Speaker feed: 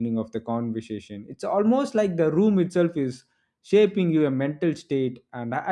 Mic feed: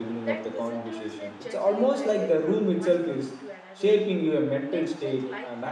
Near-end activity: present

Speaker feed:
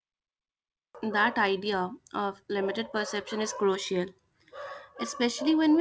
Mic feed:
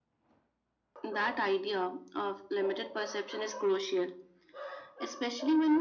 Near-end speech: none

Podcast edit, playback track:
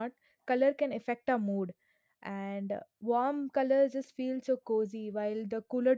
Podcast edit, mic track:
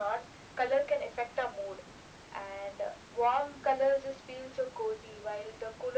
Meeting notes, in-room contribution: none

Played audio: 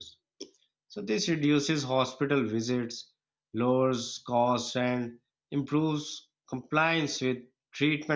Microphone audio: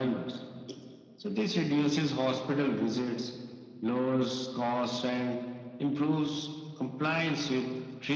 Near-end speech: none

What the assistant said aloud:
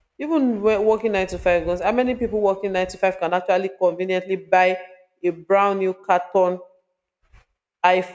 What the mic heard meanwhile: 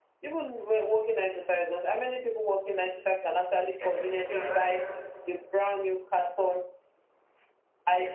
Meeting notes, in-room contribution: present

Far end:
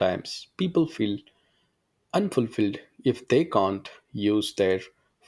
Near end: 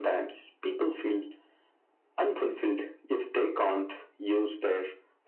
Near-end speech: none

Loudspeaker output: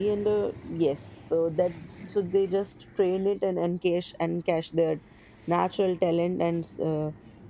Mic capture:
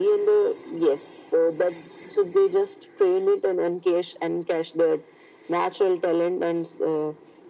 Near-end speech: none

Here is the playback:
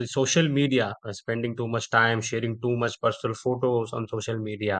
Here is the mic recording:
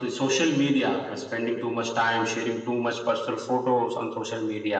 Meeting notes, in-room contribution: none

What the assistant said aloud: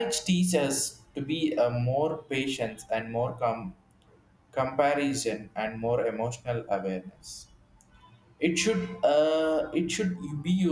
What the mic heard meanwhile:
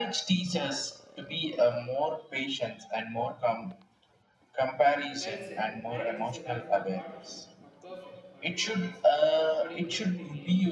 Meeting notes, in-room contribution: present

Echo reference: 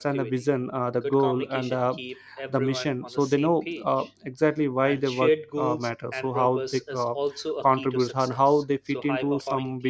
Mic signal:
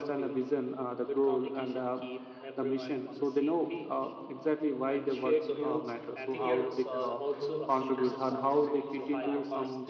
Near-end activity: present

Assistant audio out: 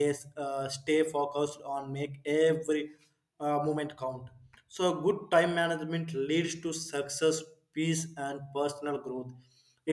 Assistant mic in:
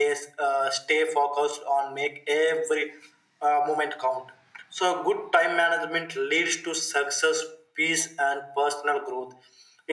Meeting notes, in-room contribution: none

